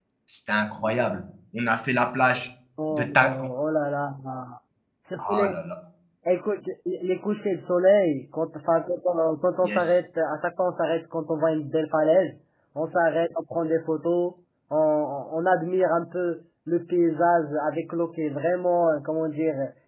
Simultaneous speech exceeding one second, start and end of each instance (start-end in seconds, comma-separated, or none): none